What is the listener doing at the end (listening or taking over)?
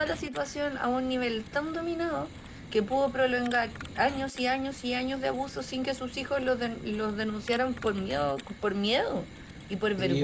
taking over